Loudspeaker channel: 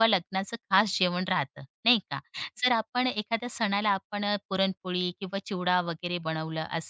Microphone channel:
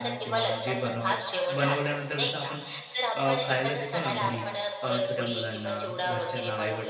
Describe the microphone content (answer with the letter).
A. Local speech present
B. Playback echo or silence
A